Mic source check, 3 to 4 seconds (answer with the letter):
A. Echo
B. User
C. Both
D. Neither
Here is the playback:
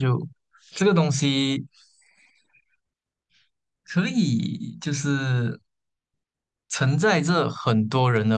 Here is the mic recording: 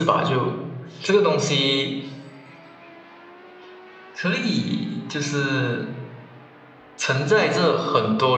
D